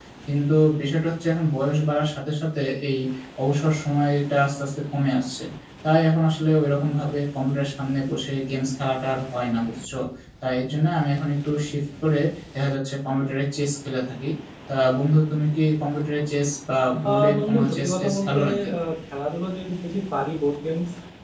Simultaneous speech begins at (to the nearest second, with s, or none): 17 s